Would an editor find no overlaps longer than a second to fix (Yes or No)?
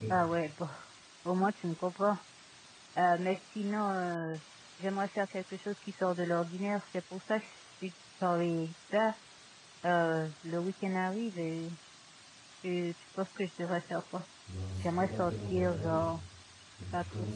No